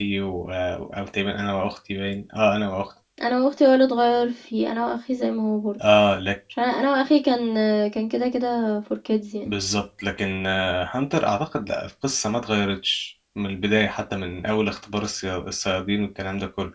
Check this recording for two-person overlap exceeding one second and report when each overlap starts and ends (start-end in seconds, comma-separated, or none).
none